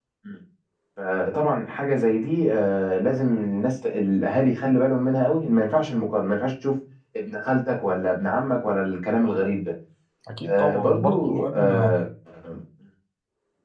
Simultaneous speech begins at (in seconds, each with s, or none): 10.4 s